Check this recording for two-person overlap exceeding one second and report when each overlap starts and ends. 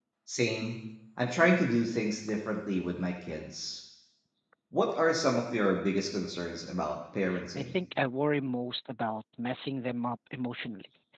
none

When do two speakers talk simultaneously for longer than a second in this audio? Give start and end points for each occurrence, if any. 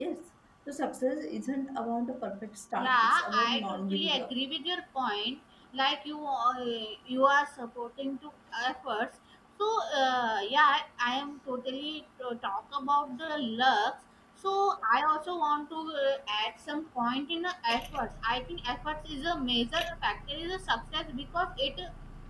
2.8-4.3

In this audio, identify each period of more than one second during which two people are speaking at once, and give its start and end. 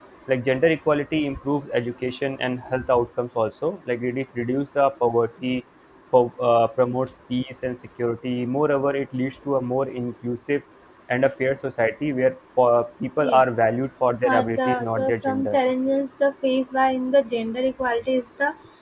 14.2-15.6

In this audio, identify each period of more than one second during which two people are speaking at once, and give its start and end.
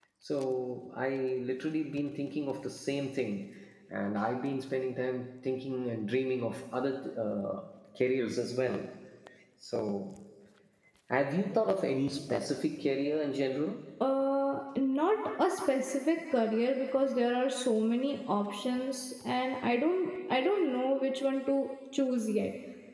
none

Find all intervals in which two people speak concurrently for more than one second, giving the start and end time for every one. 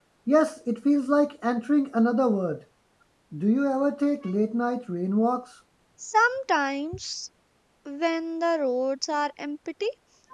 none

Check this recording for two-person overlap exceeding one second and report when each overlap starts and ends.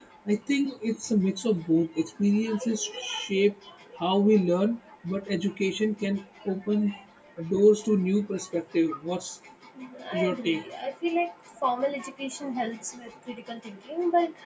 none

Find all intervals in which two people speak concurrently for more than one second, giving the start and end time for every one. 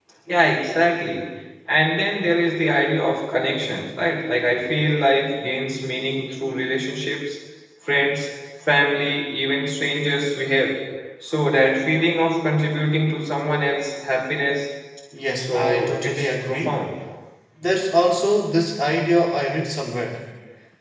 15.4-16.8

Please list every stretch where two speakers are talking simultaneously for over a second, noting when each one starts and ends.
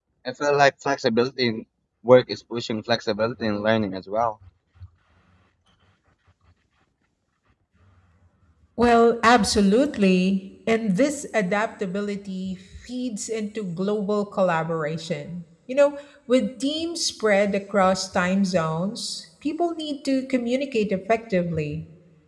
none

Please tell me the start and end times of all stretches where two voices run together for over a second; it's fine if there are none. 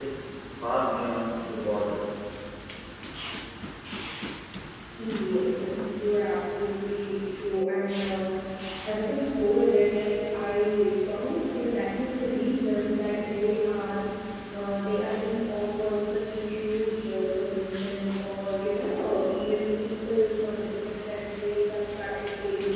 none

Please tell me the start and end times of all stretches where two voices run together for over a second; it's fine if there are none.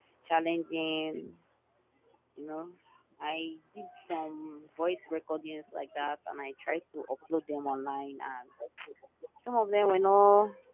none

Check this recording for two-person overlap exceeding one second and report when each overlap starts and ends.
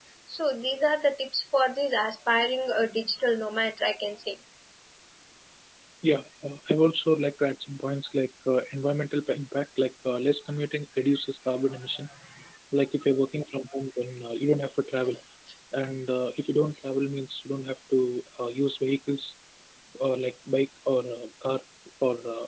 none

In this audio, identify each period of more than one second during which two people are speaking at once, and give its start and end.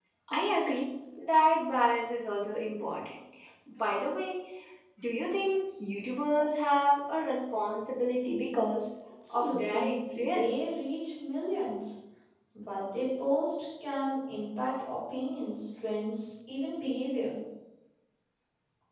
9.3-10.6

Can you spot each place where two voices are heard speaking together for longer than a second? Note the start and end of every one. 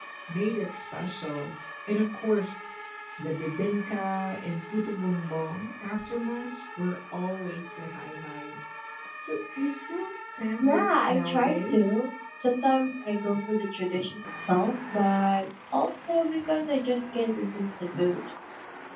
10.6-11.9

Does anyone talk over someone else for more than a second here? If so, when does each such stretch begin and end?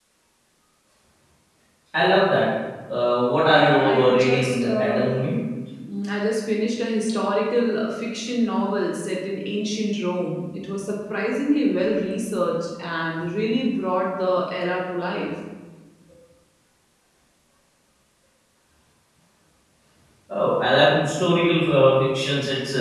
3.4-5.1

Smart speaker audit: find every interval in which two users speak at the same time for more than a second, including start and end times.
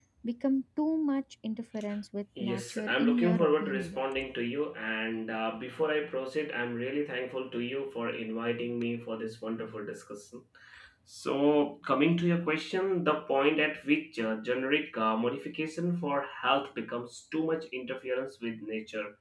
2.4-4.0

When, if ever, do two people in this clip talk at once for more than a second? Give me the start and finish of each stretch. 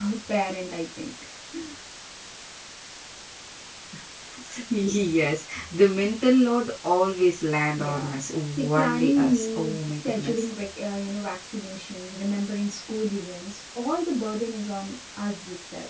7.8-10.5

